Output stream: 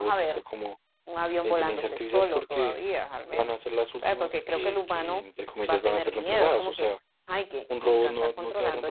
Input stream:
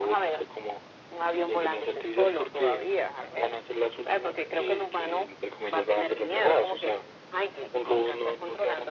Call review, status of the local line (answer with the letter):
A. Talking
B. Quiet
B